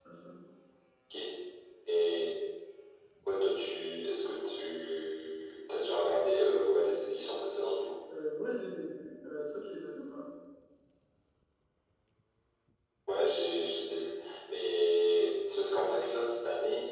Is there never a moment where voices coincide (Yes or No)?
Yes